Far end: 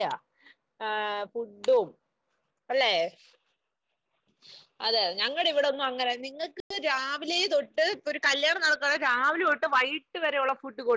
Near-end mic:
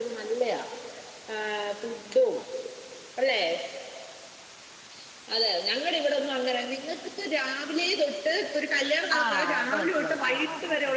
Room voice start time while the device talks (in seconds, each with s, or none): 9.2 s